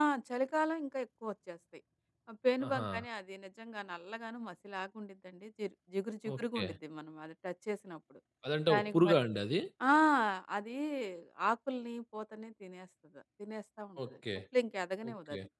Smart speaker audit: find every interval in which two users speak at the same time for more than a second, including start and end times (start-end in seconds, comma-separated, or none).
none